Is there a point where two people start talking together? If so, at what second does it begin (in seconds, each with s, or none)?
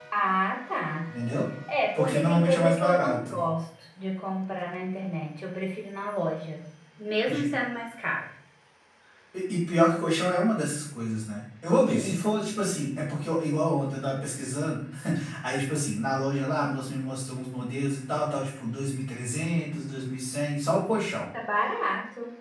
1.9 s